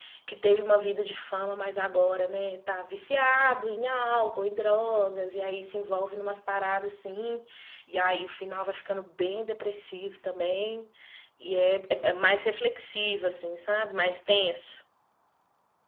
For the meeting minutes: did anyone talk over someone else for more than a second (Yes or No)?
No